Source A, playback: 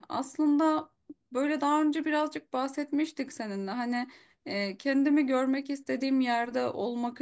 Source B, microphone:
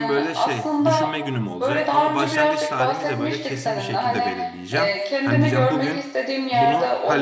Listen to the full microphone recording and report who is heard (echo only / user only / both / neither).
both